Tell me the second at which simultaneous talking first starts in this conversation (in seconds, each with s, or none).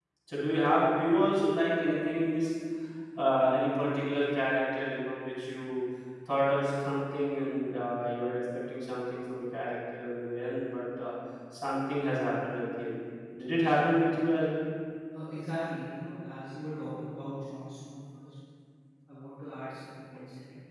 none